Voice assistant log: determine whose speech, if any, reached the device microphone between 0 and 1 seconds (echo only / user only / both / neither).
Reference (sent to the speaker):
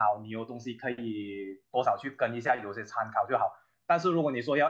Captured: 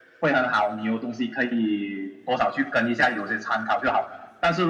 echo only